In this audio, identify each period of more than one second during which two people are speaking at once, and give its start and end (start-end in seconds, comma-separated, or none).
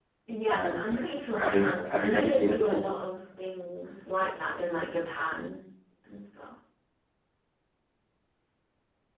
1.4-2.9